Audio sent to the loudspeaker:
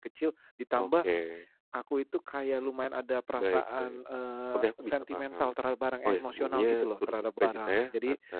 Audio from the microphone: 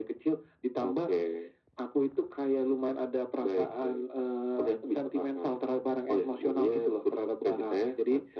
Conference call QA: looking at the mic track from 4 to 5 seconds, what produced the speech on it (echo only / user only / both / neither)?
echo only